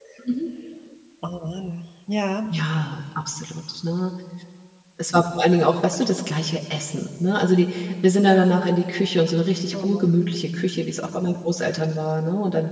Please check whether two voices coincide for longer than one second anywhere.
No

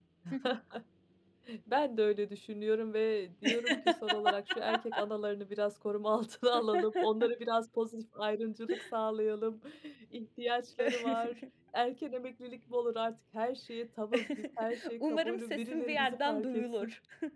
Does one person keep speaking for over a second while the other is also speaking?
Yes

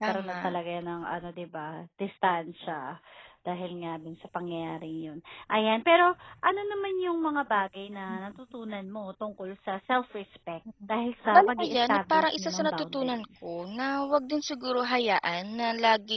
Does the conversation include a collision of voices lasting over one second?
Yes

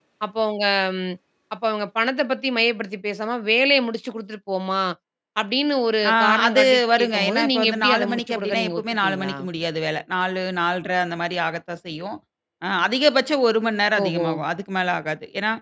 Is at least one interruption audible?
Yes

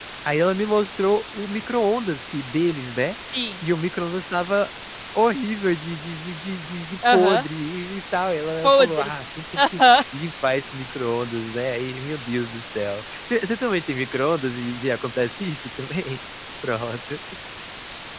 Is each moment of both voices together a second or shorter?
Yes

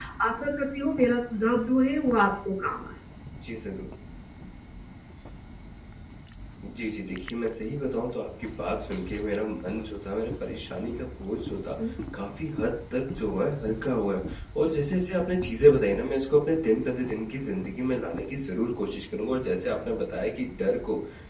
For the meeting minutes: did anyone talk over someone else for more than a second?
No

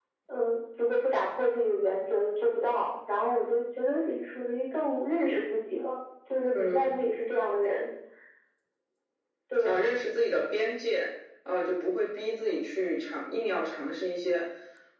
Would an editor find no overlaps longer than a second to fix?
Yes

